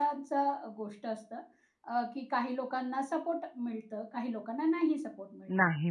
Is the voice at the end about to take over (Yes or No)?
Yes